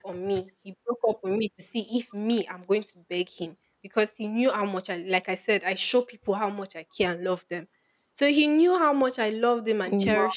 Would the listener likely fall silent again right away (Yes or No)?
Yes